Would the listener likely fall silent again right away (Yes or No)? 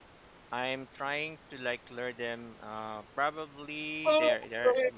No